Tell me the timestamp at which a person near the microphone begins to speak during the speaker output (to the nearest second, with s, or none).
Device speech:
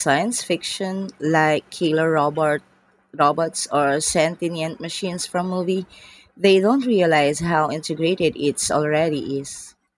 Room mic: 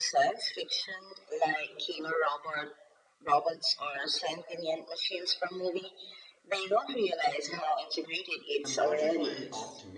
9 s